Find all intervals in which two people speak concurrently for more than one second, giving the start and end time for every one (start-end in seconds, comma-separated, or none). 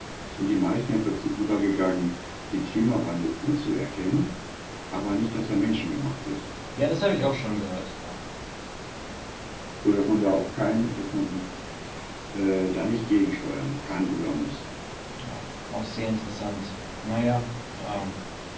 none